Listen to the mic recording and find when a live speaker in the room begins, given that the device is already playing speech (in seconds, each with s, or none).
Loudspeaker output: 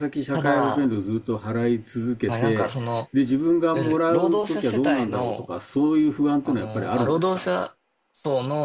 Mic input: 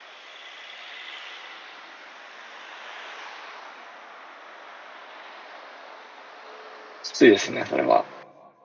7.0 s